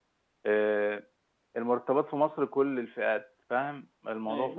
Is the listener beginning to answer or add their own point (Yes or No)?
Yes